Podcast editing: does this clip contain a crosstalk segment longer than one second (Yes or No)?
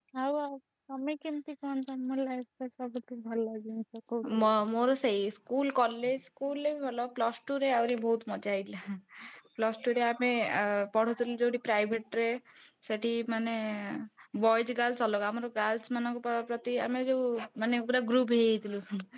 No